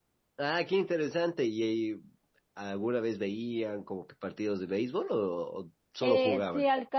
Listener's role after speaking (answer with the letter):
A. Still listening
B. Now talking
B